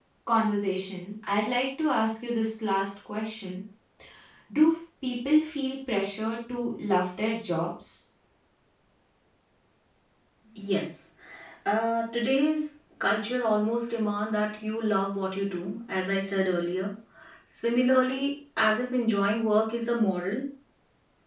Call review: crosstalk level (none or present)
none